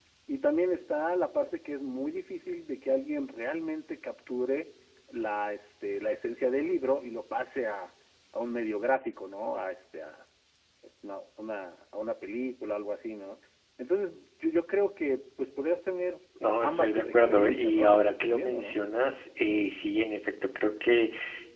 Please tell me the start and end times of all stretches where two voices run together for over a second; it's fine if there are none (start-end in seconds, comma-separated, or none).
16.6-18.8